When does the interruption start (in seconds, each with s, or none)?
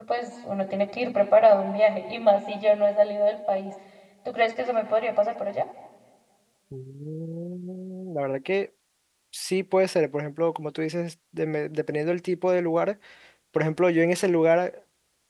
none